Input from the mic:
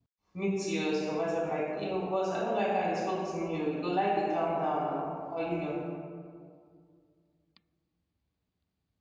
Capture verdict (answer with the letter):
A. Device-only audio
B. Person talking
B